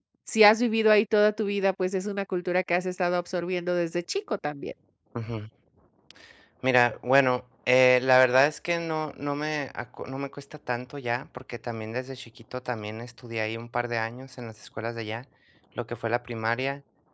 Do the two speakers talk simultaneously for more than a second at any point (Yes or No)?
No